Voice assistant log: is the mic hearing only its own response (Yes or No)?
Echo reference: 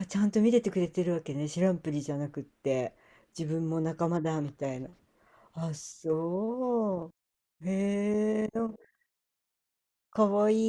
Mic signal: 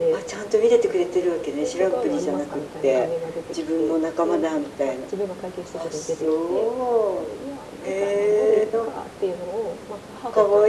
No